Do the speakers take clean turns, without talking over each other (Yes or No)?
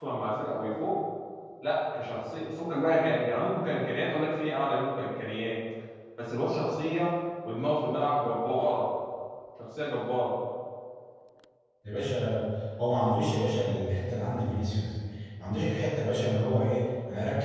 Yes